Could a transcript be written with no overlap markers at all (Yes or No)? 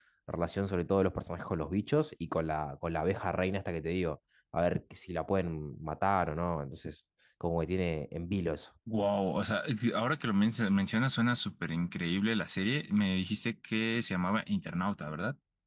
Yes